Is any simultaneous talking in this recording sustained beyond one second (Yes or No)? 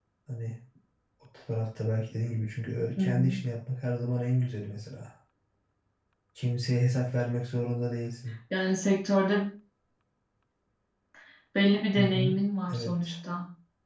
No